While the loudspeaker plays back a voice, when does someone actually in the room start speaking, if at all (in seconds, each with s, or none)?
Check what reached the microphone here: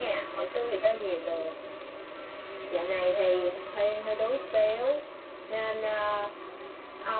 none